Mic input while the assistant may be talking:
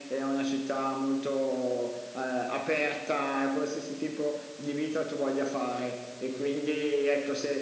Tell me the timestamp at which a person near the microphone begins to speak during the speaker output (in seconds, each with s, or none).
none